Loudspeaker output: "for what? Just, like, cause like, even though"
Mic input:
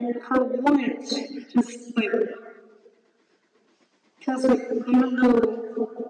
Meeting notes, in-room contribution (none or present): none